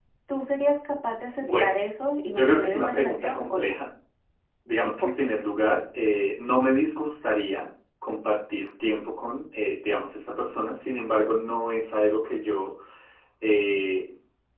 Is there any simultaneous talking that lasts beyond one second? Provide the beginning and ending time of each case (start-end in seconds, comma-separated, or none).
2.3-3.7